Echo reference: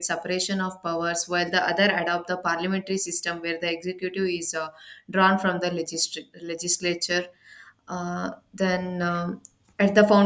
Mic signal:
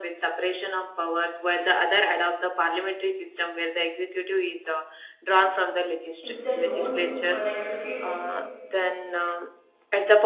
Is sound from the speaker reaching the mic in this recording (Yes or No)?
Yes